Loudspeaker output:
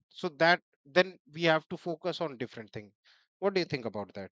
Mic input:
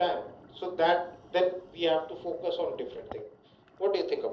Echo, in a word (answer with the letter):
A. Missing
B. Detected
B